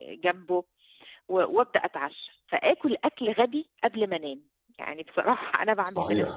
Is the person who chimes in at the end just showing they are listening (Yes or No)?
No